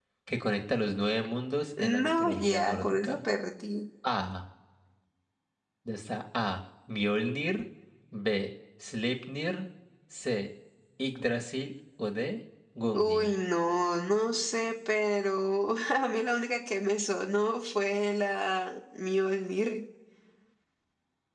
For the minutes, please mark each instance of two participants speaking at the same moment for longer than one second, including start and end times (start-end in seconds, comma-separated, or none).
1.8-3.2